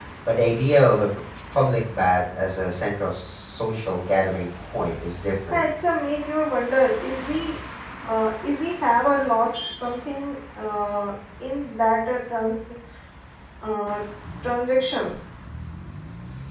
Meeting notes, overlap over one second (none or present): none